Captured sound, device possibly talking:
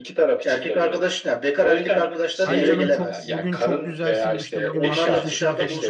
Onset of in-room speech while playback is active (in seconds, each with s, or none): 2.5 s